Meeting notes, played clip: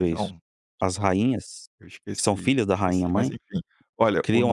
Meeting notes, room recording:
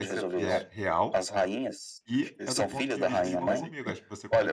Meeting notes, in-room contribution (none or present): present